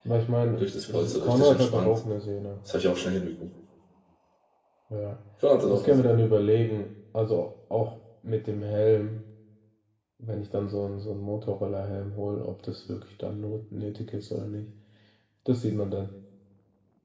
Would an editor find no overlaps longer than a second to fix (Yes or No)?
No